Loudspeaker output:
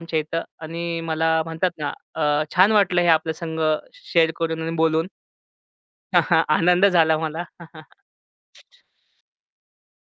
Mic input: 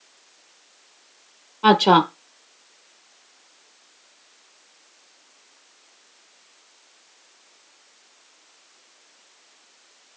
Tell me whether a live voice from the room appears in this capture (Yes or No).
Yes